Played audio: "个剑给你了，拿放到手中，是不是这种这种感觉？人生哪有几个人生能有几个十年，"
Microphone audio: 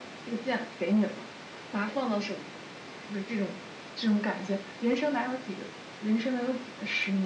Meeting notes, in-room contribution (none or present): none